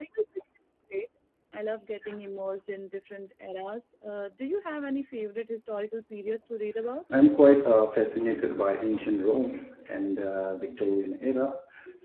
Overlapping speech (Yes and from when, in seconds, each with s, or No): No